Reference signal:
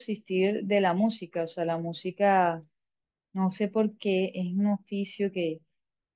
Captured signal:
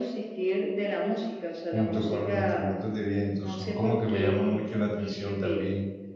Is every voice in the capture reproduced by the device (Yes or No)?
No